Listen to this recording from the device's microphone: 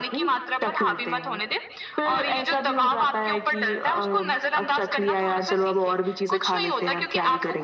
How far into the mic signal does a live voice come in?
none

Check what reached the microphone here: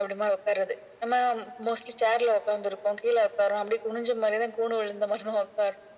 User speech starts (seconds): none

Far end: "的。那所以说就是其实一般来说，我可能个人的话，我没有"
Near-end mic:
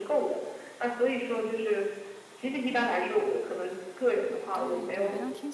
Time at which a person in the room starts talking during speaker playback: 4.5 s

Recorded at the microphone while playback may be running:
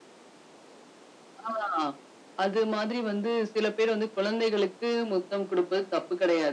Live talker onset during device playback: none

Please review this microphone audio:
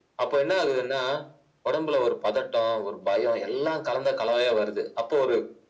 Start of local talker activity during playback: none

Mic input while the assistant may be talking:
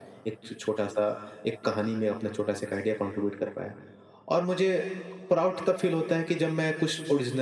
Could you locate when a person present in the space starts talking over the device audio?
none

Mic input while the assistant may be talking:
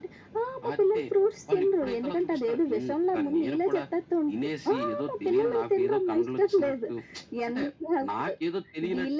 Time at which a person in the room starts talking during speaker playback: none

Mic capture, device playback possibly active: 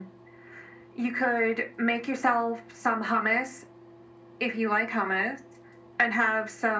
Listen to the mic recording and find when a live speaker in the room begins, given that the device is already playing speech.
none

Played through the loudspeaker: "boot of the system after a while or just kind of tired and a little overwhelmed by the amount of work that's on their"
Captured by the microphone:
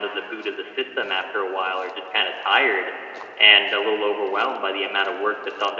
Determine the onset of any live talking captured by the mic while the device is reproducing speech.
none

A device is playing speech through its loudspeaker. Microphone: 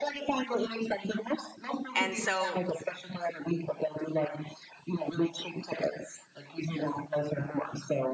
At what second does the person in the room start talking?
1.9 s

